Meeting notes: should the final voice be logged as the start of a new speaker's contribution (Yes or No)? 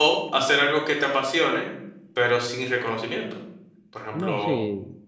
Yes